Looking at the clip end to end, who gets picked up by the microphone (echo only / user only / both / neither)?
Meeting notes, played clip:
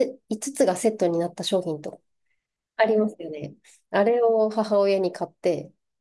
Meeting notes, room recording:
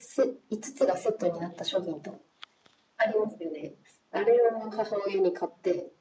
echo only